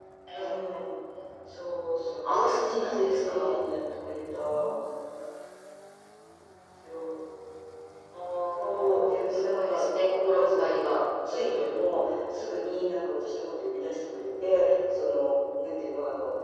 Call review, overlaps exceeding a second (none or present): present